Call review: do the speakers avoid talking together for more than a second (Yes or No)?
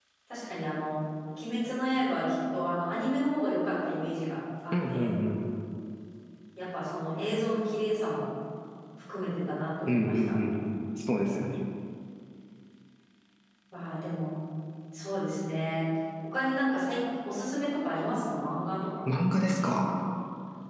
Yes